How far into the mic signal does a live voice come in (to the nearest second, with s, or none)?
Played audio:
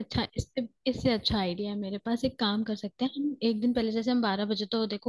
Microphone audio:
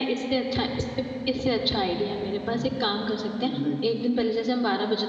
3 s